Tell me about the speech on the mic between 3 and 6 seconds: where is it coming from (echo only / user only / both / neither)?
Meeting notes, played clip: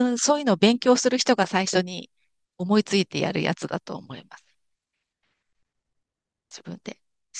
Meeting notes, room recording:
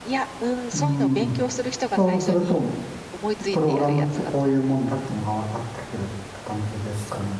both